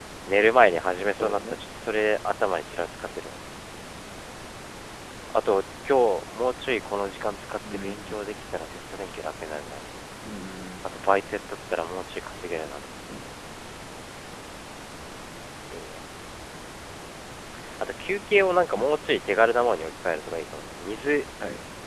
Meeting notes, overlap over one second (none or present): none